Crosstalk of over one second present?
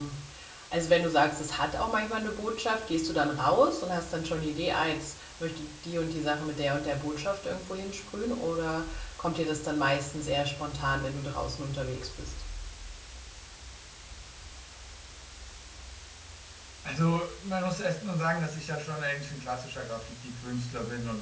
No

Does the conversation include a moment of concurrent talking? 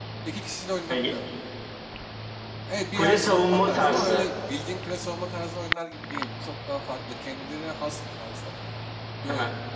Yes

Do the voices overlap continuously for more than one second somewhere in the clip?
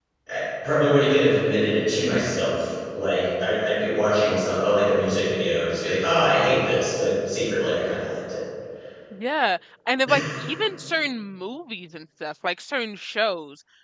No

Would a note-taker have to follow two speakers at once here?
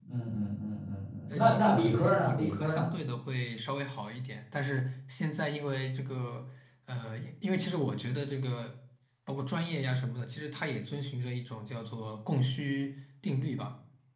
Yes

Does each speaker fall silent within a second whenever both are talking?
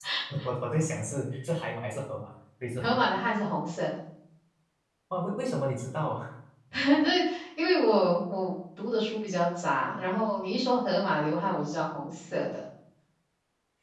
Yes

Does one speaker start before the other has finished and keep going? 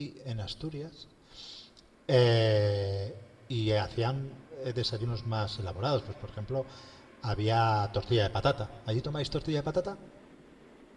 No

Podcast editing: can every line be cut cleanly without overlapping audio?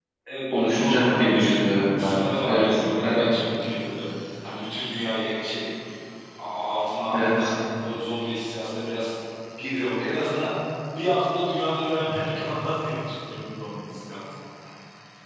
No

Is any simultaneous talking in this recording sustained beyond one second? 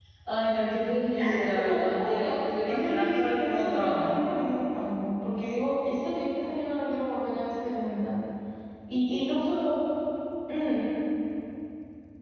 Yes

